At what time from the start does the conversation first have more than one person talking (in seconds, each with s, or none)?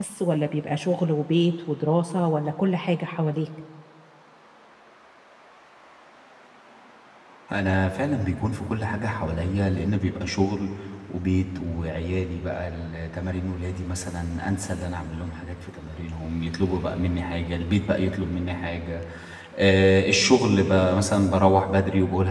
none